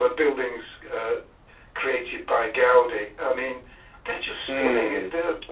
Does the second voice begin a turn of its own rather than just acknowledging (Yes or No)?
Yes